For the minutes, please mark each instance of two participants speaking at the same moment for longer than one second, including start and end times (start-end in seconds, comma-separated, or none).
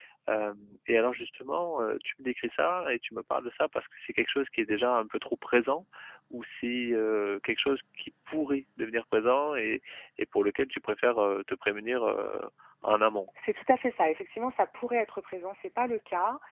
none